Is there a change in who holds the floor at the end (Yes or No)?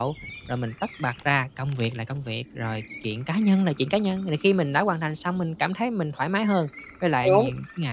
No